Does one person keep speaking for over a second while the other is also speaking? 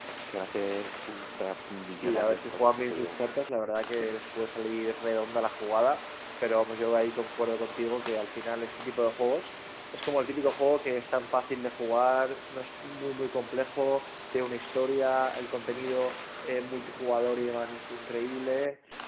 Yes, from 1.9 s

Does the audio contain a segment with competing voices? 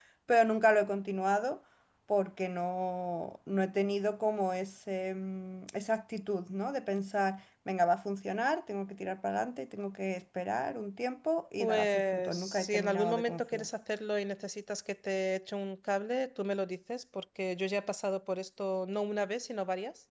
Yes, from 11.6 s

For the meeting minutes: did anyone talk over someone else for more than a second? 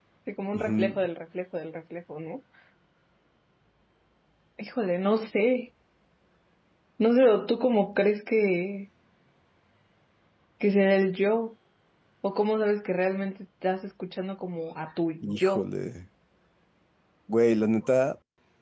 No

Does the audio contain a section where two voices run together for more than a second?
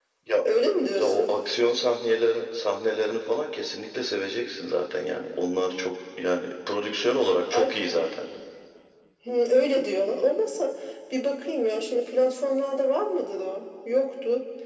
No

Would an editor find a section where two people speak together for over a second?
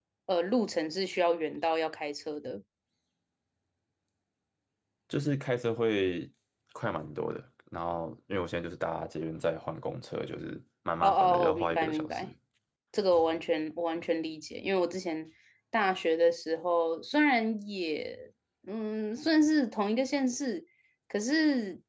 Yes, from 11.0 s

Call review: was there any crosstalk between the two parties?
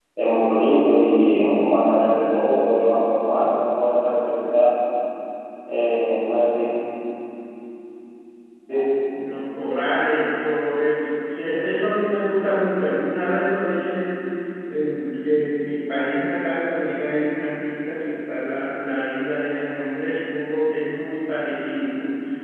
No

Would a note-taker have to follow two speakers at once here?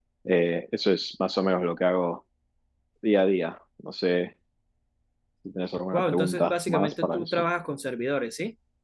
Yes, from 5.9 s

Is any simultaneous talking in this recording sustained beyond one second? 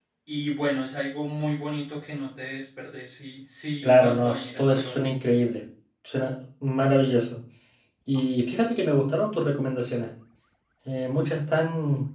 Yes, from 3.8 s

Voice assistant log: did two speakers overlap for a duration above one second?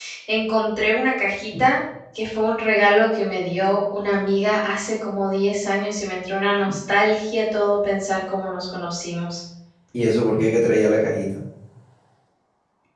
No

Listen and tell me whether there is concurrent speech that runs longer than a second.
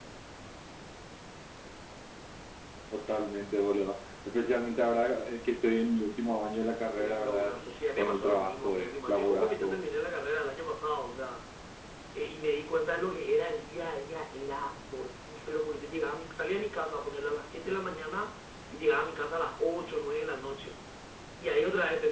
Yes, from 7.0 s

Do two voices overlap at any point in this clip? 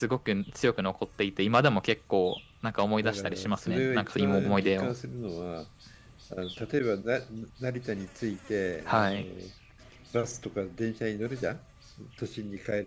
Yes, from 3.0 s

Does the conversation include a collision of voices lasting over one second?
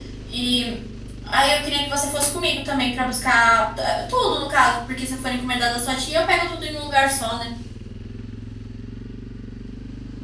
No

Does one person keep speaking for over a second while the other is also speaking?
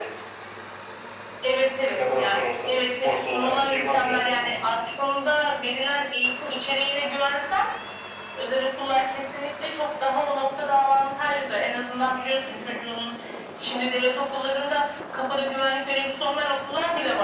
Yes, from 1.9 s

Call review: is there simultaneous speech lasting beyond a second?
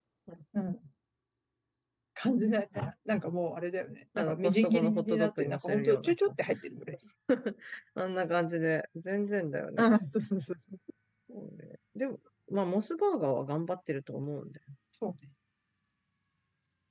Yes, from 4.2 s

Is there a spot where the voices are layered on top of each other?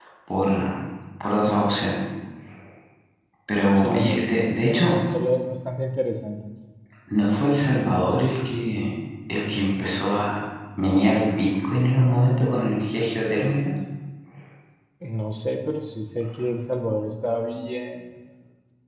Yes, from 3.7 s

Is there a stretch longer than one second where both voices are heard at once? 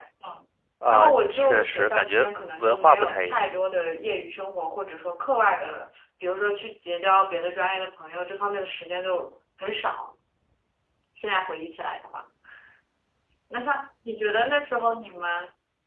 Yes, from 0.9 s

